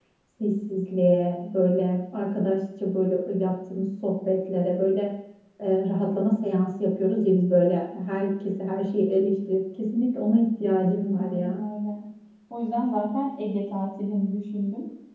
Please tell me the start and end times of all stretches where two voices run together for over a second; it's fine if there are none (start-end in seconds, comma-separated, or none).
none